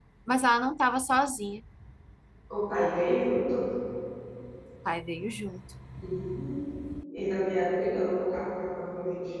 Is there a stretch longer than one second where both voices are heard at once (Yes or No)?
No